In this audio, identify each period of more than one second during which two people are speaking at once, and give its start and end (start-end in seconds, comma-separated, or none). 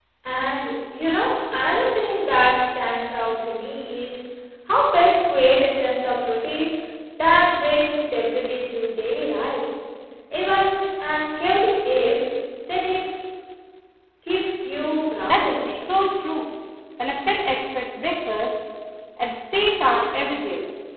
none